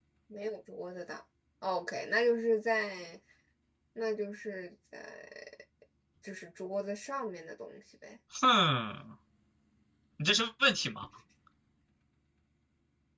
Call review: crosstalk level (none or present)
none